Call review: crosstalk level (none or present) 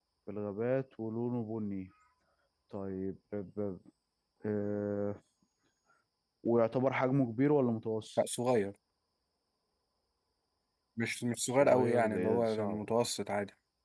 present